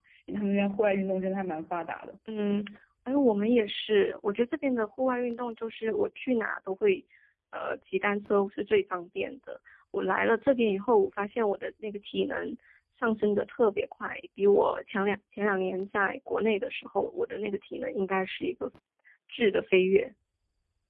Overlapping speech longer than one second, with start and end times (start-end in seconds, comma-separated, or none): none